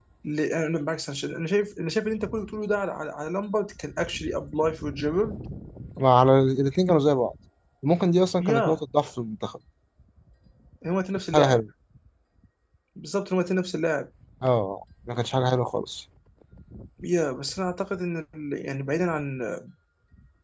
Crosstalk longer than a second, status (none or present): none